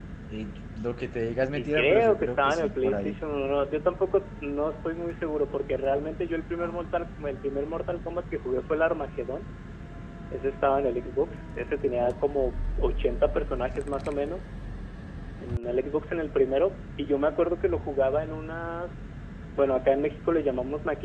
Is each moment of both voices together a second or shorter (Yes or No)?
No